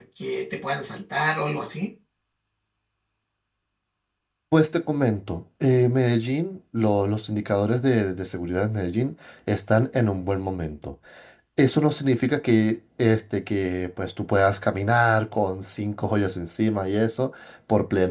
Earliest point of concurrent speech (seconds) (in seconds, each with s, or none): none